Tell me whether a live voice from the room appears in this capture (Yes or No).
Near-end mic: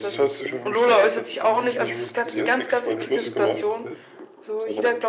Yes